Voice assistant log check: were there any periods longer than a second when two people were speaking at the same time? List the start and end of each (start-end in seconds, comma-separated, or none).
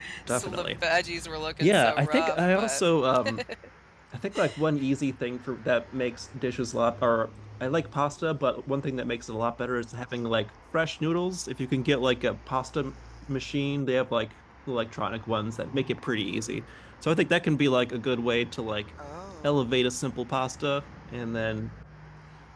1.6-2.8